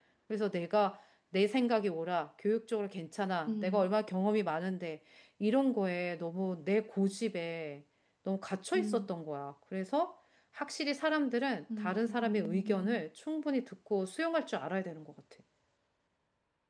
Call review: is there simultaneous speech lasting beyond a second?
Yes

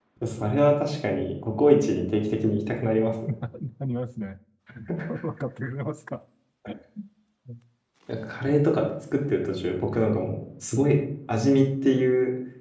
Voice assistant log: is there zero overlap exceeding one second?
Yes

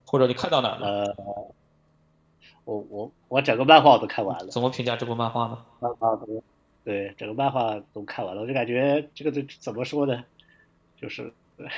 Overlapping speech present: No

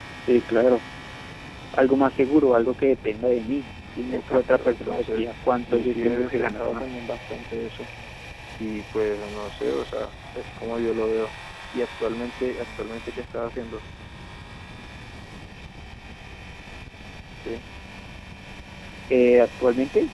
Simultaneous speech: Yes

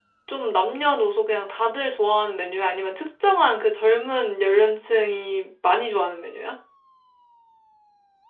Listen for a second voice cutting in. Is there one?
No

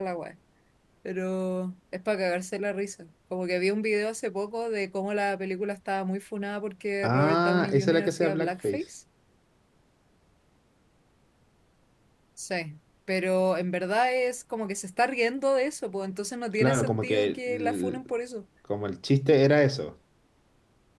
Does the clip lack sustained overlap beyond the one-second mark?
No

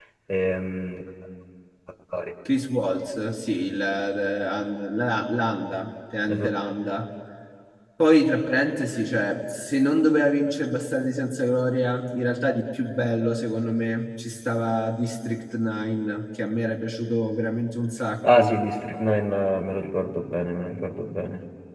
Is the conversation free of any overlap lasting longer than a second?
Yes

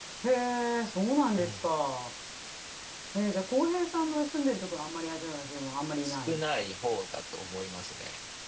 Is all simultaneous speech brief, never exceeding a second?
Yes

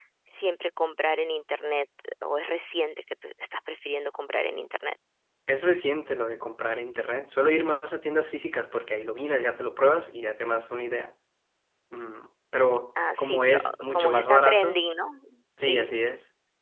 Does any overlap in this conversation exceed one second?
Yes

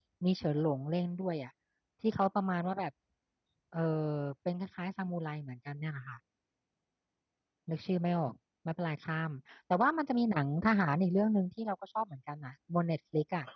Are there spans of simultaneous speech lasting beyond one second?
No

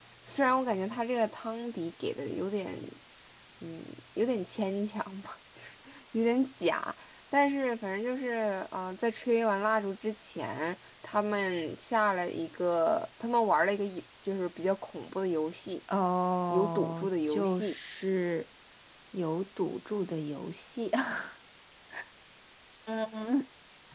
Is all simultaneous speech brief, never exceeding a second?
No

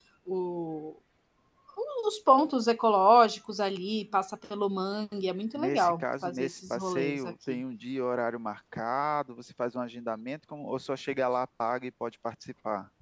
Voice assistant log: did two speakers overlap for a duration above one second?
Yes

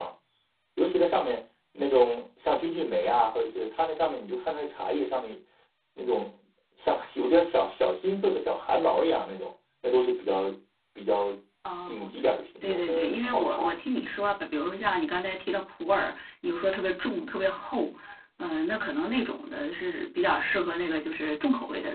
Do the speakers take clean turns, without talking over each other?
No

